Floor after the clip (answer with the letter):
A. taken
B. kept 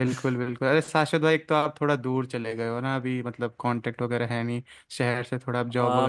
A